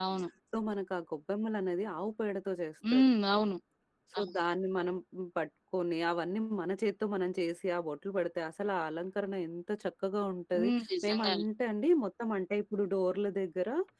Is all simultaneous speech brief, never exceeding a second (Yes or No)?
Yes